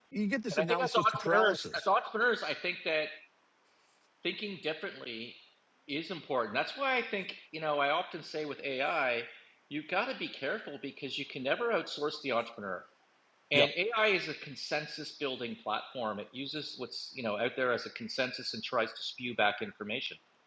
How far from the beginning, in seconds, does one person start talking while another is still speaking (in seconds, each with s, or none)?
0.5 s